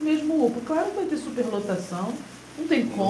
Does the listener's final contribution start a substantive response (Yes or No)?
Yes